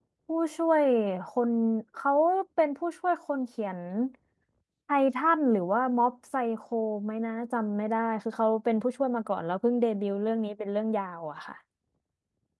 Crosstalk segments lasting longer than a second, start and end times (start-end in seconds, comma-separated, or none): none